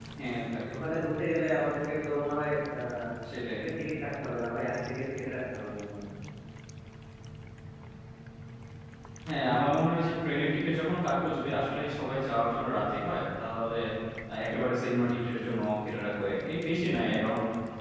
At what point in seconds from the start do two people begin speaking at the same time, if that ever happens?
none

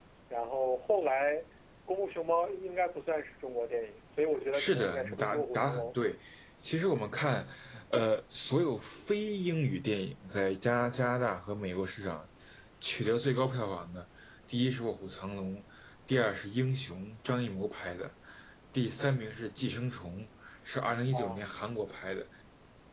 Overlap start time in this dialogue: 5 s

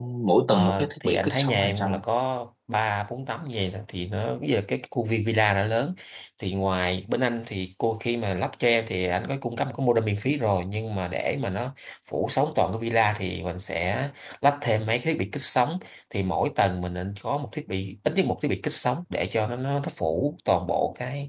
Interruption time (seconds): 1 s

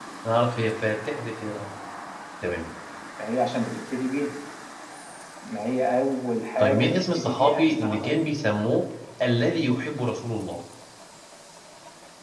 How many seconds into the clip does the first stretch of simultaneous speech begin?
7 s

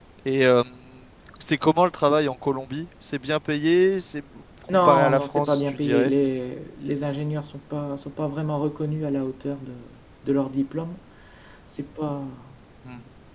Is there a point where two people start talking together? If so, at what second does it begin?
5 s

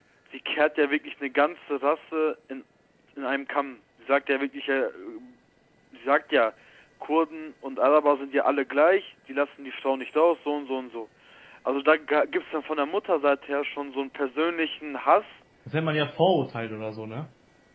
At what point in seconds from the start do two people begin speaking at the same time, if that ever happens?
none

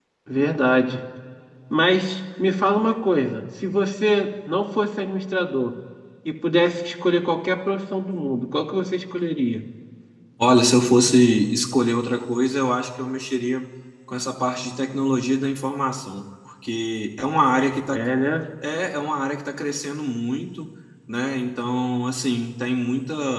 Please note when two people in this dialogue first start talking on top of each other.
none

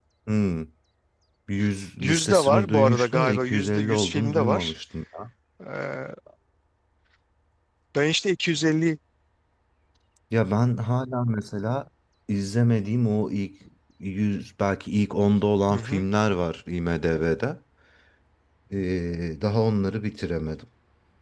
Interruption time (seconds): 2 s

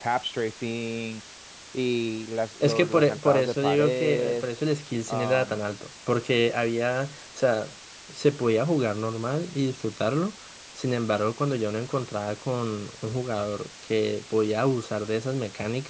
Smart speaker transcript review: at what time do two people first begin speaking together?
3 s

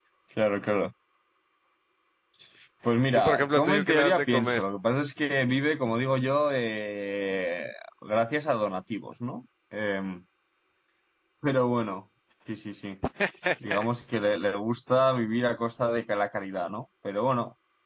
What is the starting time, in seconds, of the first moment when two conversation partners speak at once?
3 s

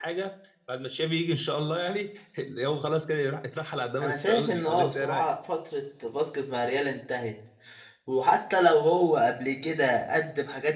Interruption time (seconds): 4 s

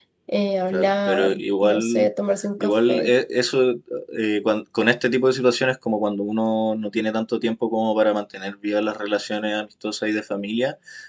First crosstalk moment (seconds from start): 1 s

